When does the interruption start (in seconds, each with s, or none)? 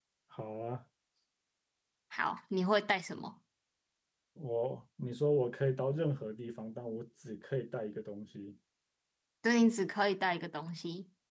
none